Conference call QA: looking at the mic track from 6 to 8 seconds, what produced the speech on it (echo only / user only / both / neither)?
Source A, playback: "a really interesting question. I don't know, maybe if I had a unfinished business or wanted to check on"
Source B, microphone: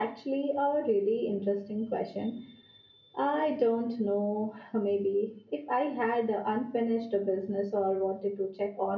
echo only